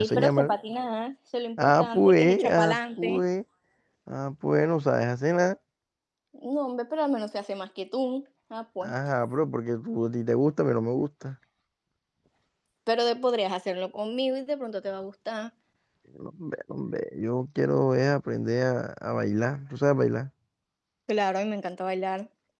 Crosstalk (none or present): present